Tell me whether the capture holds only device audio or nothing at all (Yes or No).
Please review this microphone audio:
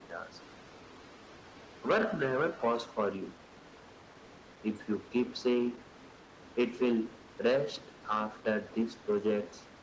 Yes